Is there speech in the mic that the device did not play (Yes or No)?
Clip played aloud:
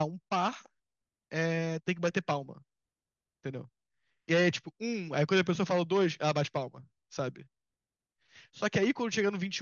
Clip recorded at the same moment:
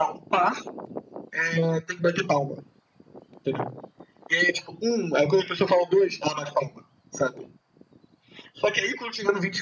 No